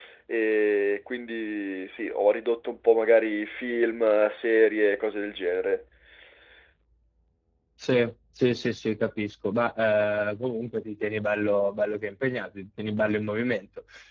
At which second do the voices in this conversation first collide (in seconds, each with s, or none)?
none